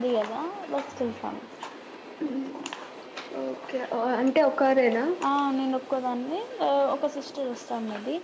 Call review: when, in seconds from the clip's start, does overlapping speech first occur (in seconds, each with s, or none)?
none